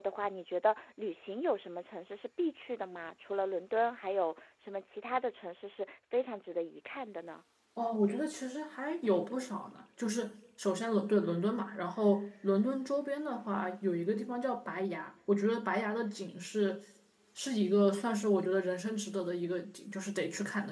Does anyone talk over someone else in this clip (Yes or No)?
No